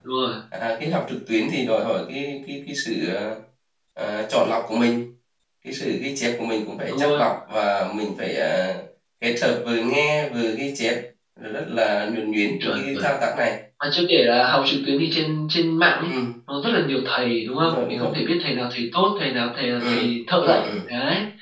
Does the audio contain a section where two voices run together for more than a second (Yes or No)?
No